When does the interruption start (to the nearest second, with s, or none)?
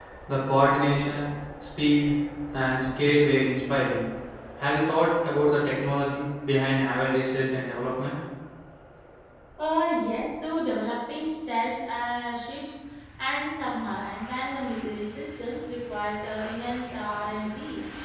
none